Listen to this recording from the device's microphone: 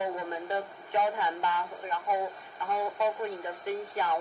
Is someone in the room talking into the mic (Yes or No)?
No